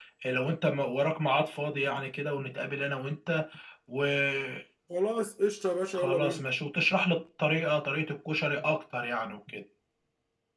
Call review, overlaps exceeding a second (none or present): none